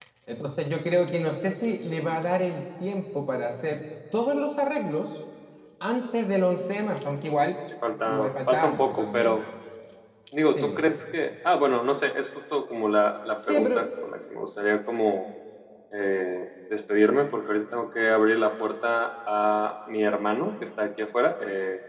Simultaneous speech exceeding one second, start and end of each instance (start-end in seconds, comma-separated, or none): 8.1-9.4